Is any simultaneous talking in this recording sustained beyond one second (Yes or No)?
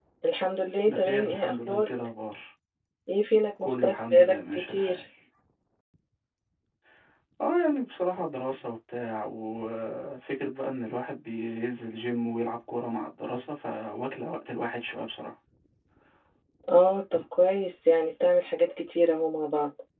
Yes